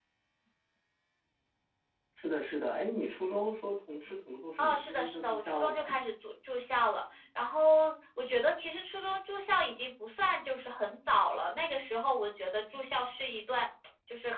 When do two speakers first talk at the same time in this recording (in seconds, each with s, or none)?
4.6 s